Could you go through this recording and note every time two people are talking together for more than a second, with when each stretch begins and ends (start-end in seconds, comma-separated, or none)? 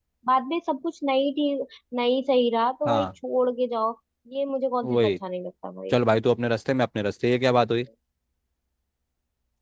none